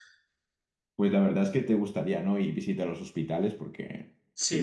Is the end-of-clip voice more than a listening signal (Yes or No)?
Yes